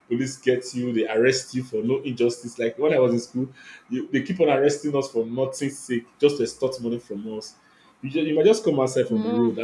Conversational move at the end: listening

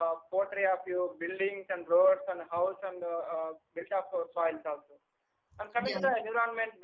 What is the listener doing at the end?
listening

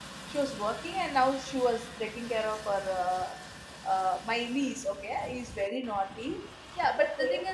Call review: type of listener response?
listening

